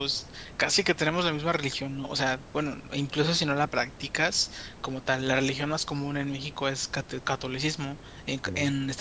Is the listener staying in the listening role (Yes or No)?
Yes